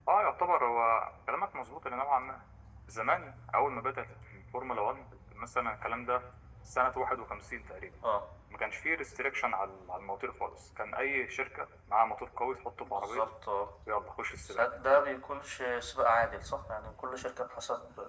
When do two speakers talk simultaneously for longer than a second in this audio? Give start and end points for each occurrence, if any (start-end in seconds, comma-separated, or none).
none